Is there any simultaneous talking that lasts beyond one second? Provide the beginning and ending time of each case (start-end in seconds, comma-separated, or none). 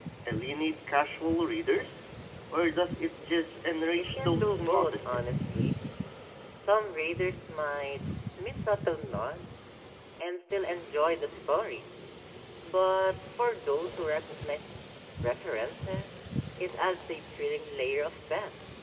4.0-5.2